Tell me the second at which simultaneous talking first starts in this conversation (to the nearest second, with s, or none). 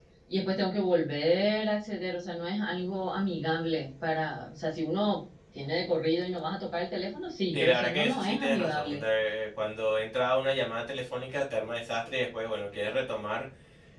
8 s